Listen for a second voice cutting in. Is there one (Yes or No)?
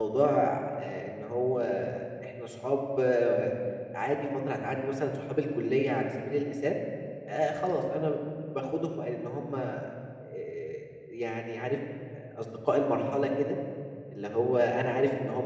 No